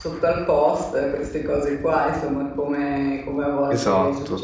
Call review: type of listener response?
listening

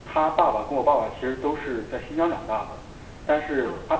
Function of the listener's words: listening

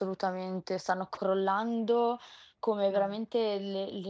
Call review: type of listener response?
listening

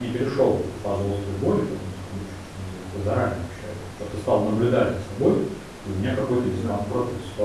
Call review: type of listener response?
listening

